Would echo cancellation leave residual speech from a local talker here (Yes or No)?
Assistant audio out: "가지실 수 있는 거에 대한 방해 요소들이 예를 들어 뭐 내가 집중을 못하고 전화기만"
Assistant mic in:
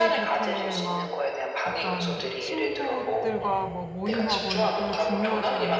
Yes